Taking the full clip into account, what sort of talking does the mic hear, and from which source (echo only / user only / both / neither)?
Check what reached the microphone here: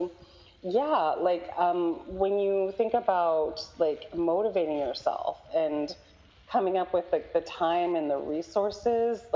echo only